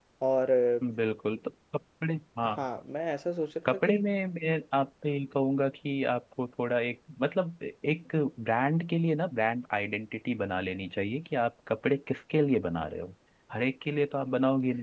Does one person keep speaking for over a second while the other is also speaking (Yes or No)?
No